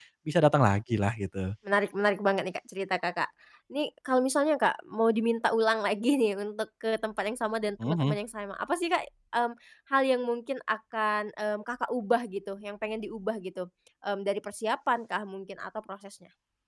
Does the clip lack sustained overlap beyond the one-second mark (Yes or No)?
Yes